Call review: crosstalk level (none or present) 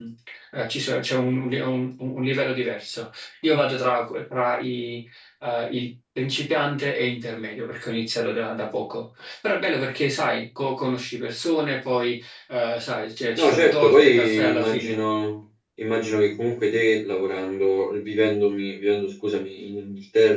present